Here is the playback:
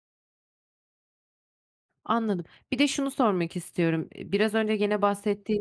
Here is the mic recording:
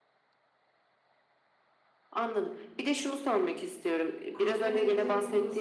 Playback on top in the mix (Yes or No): Yes